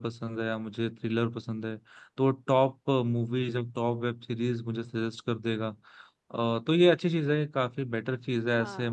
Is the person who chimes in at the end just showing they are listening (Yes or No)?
Yes